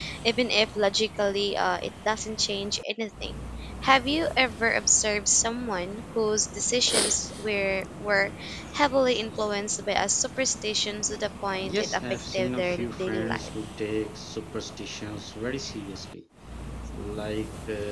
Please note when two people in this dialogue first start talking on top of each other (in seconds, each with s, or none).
11.6 s